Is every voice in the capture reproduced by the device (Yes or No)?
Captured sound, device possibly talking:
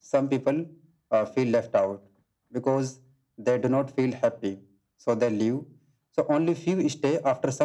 Yes